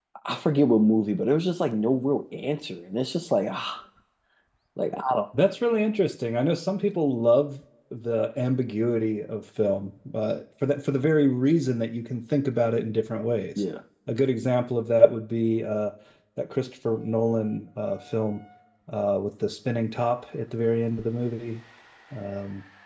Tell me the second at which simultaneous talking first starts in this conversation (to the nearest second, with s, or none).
none